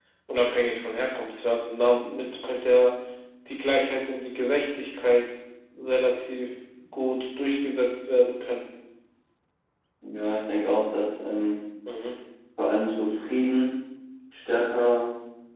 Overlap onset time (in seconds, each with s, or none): none